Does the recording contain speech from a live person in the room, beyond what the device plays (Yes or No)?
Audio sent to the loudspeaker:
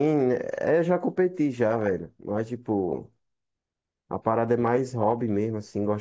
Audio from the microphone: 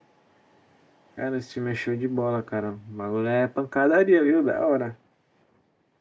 Yes